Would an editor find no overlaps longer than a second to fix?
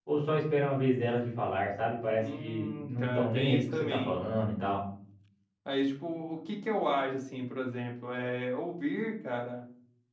No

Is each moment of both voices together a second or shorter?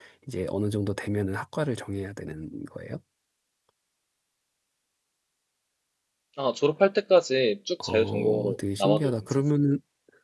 No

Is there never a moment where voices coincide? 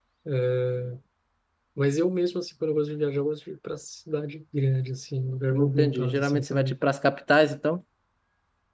No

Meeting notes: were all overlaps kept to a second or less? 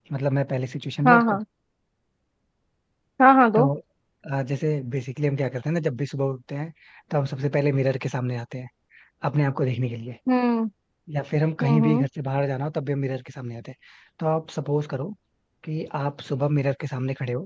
Yes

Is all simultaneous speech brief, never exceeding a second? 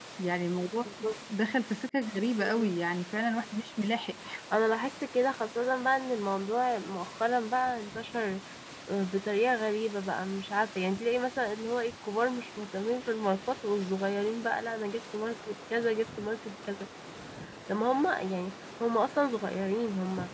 Yes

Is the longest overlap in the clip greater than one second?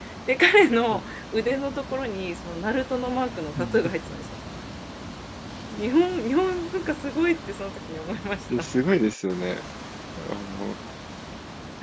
No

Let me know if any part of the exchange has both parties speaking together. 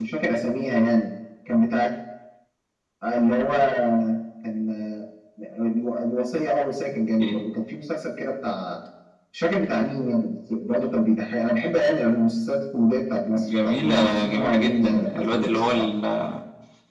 Yes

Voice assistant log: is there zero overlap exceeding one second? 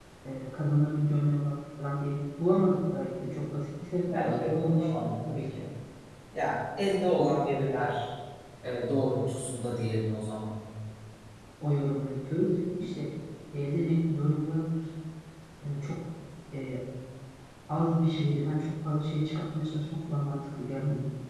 No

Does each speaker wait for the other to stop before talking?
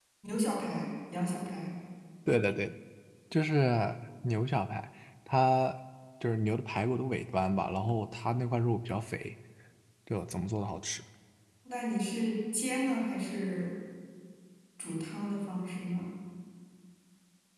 Yes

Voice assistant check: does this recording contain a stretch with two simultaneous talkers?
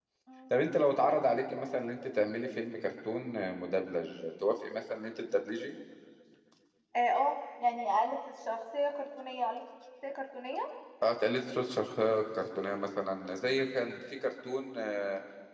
No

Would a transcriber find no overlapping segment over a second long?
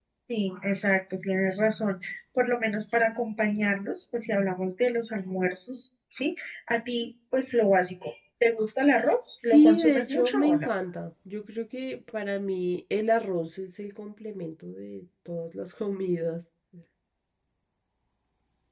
No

